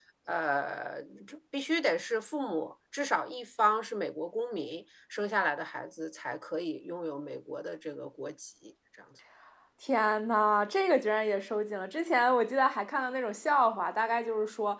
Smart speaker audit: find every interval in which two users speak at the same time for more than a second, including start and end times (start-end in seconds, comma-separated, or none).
none